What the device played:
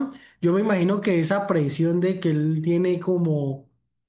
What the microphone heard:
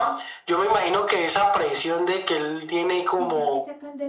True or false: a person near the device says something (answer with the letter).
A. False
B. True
B